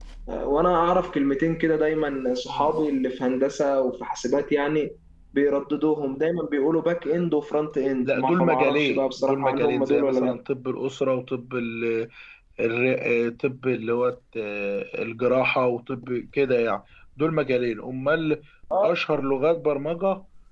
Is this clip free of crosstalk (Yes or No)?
No